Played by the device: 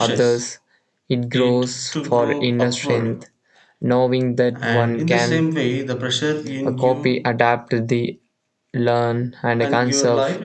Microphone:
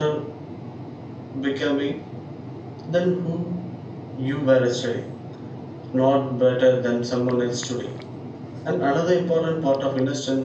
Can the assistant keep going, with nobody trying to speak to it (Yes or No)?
No